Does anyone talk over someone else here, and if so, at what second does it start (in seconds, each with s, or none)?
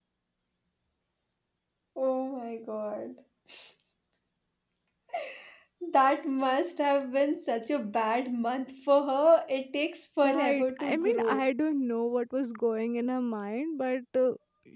10.2 s